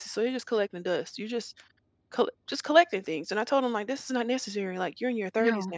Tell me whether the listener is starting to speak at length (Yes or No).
No